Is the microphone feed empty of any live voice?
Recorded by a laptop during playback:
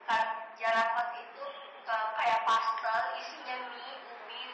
Yes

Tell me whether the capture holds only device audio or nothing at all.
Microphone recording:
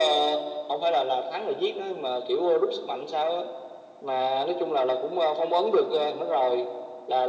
Yes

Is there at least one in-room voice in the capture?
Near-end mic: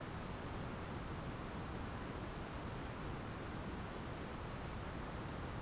No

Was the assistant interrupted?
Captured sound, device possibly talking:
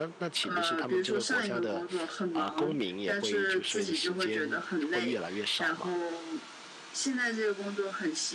Yes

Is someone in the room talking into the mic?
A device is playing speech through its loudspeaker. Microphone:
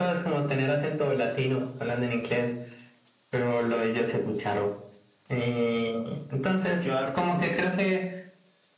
Yes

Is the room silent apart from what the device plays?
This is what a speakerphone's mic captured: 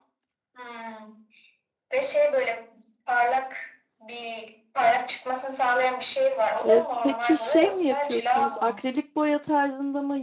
No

